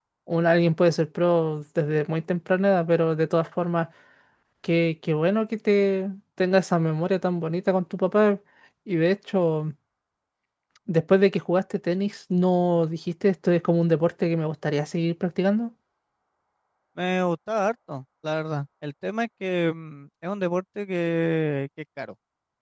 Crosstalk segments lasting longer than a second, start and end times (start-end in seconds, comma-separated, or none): none